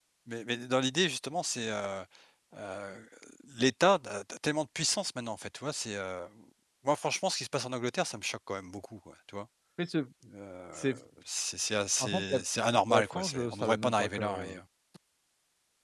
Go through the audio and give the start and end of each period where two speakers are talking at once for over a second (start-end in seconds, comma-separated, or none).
12.9-14.6